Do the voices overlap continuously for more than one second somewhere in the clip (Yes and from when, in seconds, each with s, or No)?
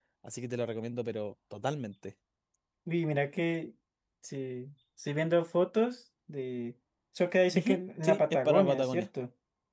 Yes, from 7.5 s